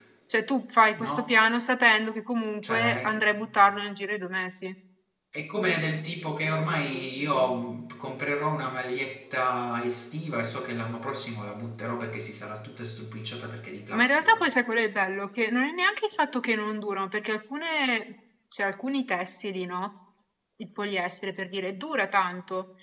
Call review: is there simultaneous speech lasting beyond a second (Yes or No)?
No